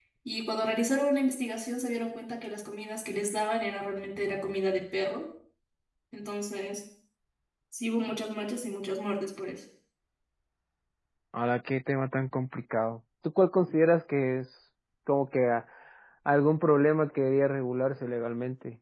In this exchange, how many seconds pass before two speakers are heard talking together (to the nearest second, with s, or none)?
none